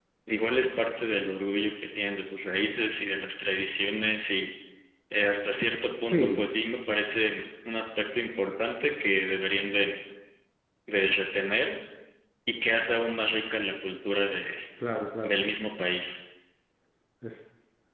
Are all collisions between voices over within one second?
Yes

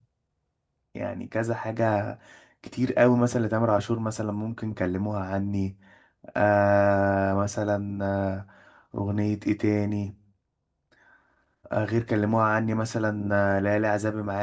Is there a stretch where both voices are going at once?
No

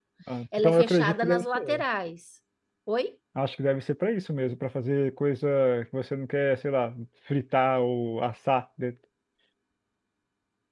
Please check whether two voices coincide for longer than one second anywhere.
Yes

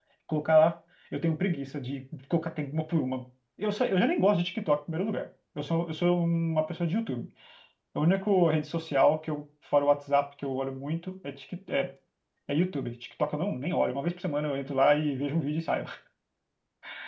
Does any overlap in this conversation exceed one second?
No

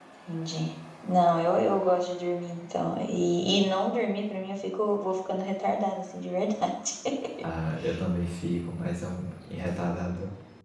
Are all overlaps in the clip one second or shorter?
Yes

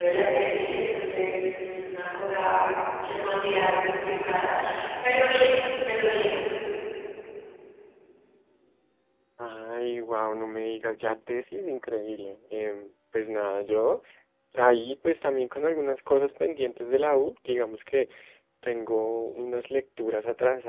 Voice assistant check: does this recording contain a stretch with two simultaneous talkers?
No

